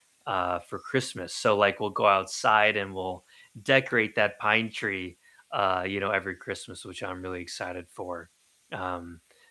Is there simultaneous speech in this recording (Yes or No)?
No